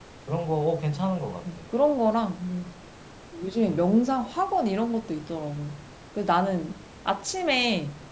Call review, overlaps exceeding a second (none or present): none